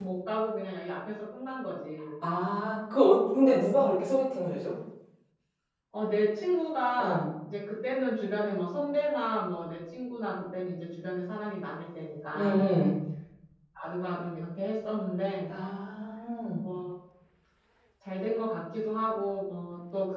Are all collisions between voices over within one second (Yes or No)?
Yes